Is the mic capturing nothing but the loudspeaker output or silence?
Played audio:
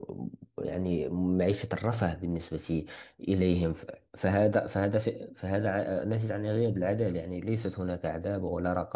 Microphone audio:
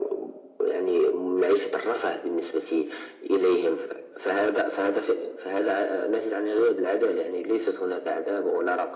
Yes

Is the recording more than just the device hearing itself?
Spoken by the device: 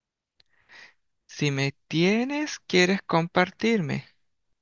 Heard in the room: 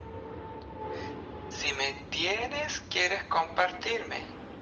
No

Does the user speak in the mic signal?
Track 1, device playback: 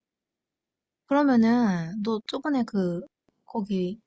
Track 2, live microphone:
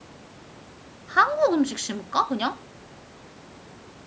Yes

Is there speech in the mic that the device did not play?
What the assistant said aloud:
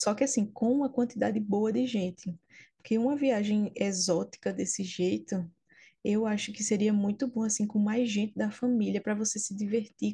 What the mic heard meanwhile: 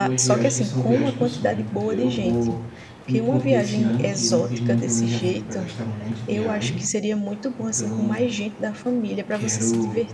Yes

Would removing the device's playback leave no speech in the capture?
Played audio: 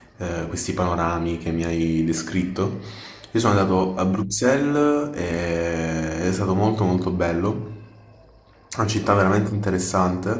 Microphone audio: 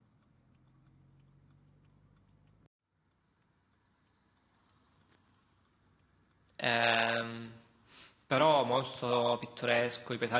No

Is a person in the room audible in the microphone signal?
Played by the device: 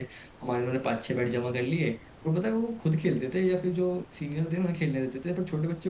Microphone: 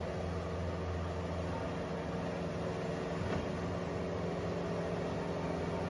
No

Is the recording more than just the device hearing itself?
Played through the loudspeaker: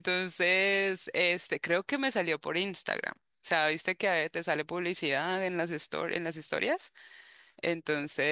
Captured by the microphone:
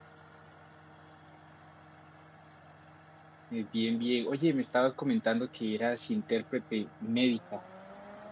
Yes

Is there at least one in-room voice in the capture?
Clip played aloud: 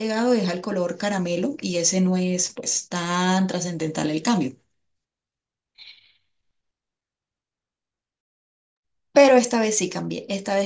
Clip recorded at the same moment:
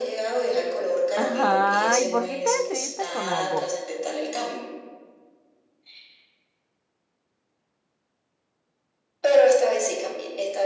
Yes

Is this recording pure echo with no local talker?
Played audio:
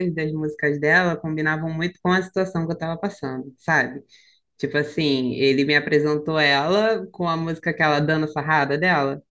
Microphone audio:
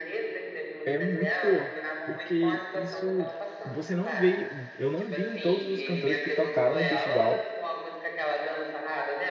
No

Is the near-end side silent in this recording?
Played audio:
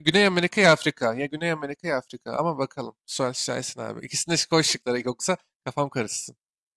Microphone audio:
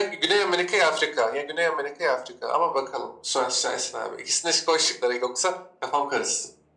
Yes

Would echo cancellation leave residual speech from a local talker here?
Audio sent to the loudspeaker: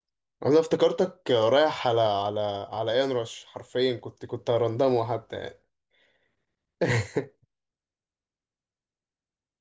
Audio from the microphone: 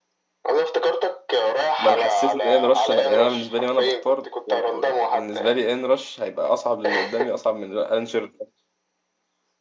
Yes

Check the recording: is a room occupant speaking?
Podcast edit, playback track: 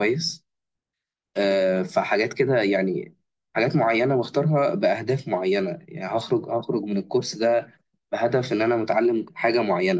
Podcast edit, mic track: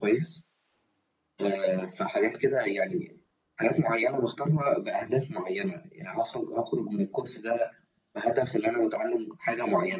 No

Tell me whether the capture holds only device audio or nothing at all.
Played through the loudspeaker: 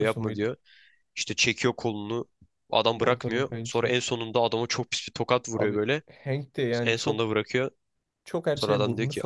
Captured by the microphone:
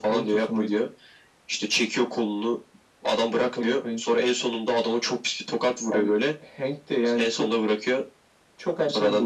Yes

